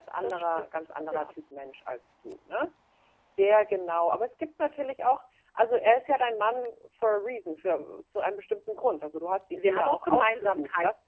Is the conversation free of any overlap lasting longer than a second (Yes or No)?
No